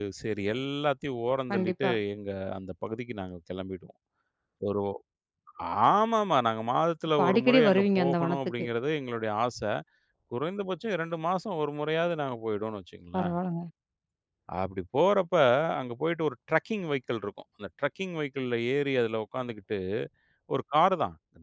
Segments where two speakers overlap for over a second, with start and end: 7.2-8.7

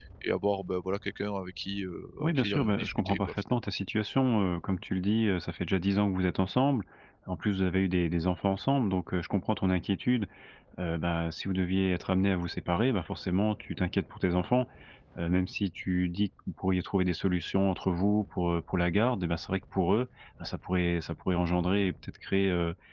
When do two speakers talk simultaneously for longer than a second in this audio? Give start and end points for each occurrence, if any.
2.2-3.4

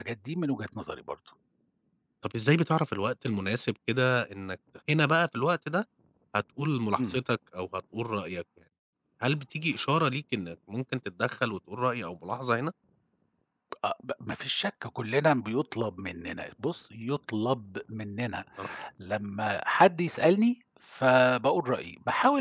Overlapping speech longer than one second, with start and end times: none

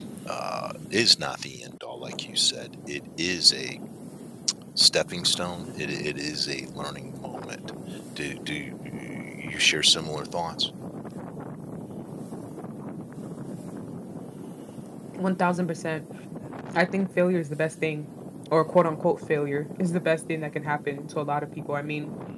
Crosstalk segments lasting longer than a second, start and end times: none

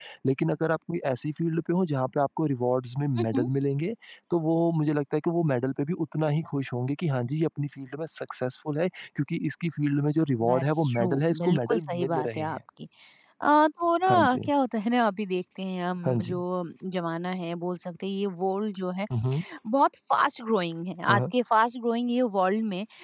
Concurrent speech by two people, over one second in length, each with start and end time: 10.5-12.6

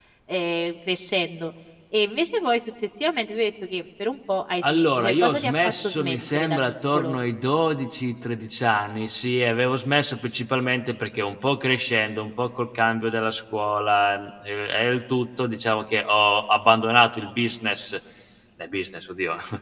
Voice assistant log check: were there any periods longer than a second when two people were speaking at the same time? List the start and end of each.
4.7-7.2

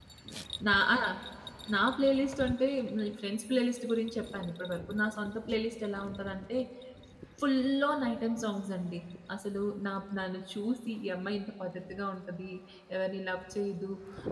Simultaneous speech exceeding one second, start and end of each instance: none

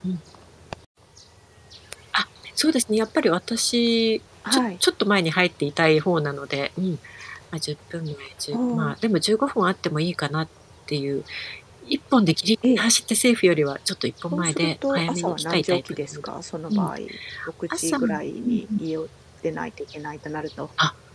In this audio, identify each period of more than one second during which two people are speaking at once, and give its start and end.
14.3-16.3

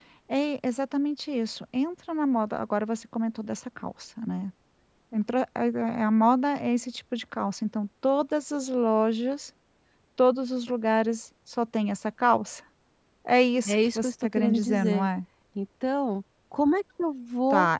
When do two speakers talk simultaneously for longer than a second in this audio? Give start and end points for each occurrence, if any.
13.7-15.1

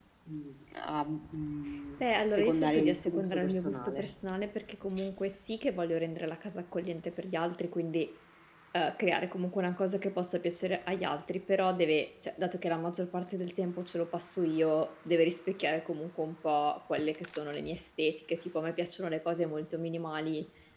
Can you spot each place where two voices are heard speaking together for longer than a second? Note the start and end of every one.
2.0-4.0

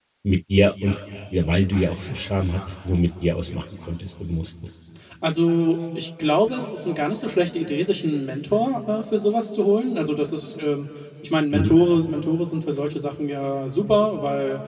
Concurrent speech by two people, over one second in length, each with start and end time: none

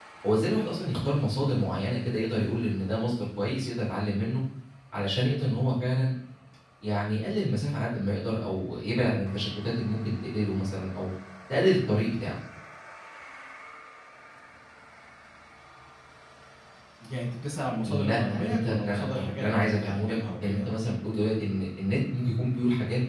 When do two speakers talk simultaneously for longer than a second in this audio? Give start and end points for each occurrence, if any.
17.8-20.7

